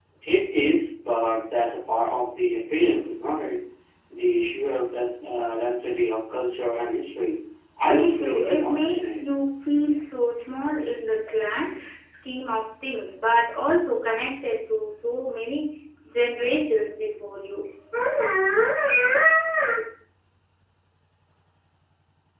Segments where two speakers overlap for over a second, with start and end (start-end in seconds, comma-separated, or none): 7.8-9.2